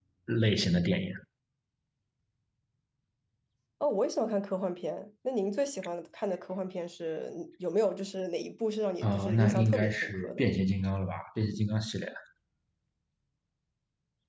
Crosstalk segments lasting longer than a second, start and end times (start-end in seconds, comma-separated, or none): 9.0-10.4